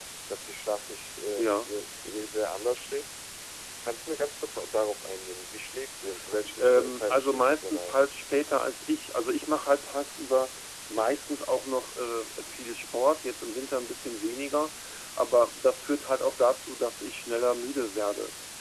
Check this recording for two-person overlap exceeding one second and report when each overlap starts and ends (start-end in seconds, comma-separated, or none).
6.6-8.0